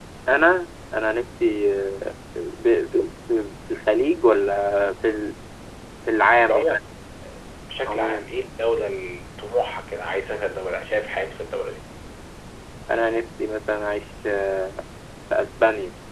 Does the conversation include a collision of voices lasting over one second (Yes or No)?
No